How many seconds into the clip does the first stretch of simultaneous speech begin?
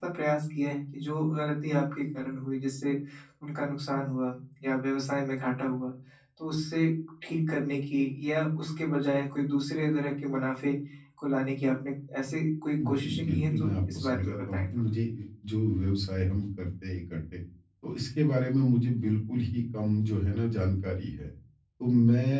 12.8 s

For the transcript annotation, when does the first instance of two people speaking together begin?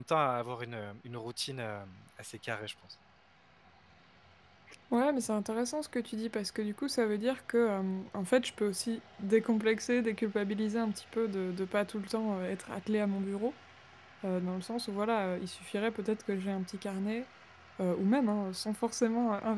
none

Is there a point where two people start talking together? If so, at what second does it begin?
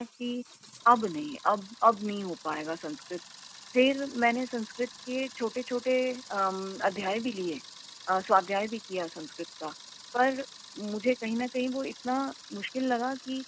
none

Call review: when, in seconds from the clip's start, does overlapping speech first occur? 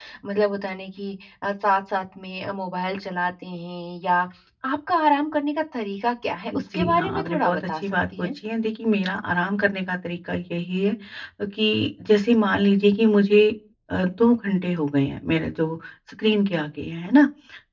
6.5 s

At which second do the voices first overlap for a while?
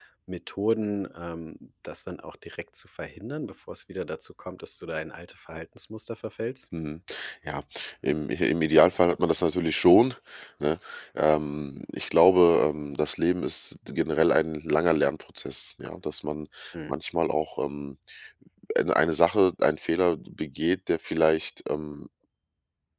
none

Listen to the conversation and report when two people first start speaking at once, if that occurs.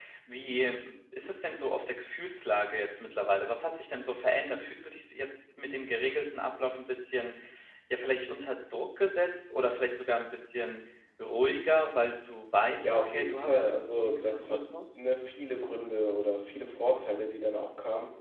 12.8 s

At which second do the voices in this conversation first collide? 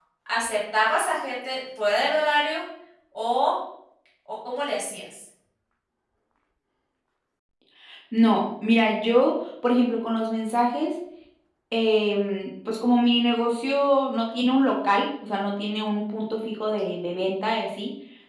none

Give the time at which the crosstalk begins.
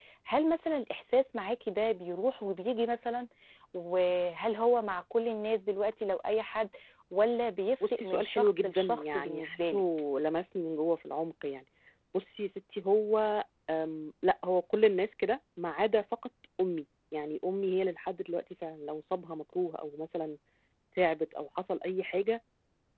7.9 s

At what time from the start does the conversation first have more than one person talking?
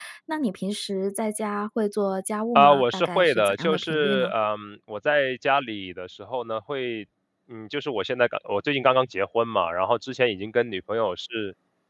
2.5 s

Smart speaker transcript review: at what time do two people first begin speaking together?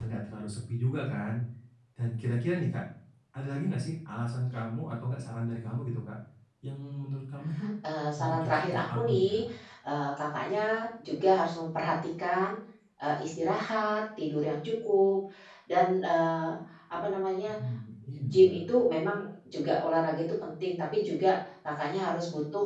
8.2 s

